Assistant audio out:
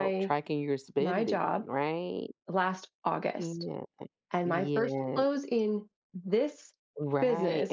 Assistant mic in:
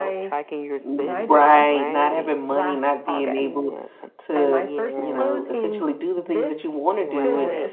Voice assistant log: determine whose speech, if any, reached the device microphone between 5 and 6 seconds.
both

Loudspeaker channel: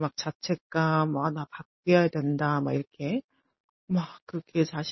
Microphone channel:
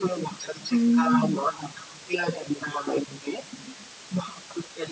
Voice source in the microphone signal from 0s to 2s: both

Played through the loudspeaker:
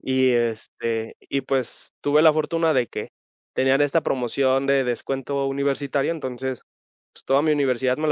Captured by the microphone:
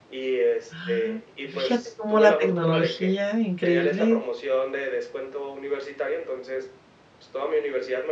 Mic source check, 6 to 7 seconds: echo only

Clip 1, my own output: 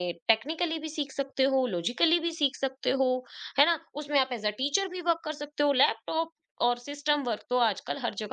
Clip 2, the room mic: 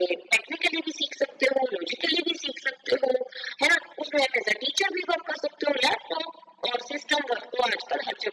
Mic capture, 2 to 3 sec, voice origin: echo only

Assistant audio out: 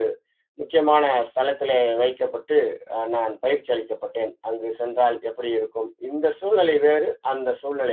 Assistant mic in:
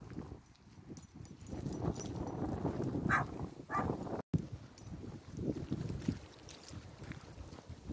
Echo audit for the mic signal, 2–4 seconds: neither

